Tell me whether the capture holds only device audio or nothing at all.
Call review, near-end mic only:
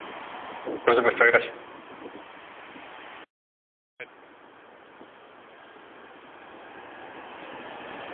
No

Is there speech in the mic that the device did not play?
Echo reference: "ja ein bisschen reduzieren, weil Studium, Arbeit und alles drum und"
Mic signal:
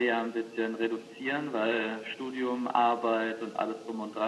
No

